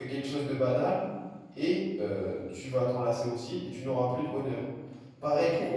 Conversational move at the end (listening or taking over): taking over